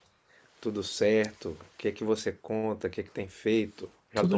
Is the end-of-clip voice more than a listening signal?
Yes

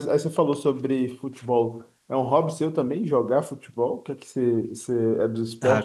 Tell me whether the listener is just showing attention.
No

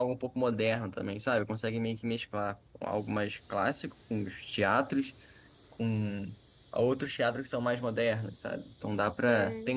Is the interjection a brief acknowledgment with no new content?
Yes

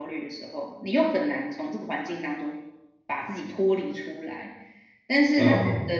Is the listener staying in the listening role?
Yes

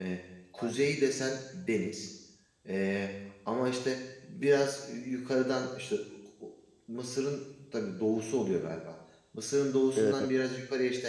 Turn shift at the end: No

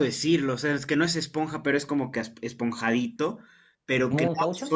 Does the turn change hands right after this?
No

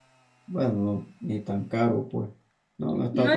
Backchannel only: No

